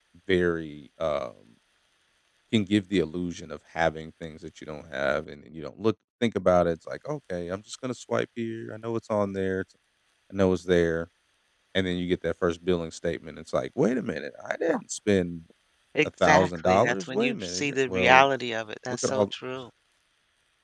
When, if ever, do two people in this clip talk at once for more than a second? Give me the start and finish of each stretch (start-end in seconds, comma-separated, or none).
16.0-18.3